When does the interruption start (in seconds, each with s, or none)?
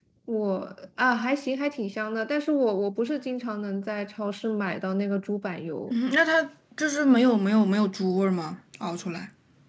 none